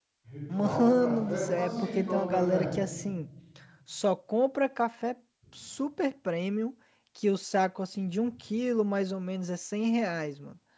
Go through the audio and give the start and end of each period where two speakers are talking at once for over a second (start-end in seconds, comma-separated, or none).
0.5-2.7